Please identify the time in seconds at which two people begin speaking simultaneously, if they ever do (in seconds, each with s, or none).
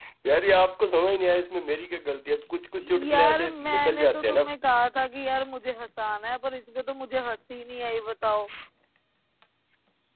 3.1 s